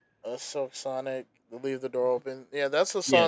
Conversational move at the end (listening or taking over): listening